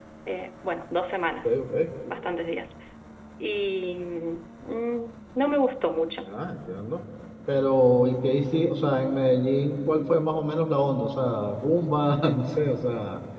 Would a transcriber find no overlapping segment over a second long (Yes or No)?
Yes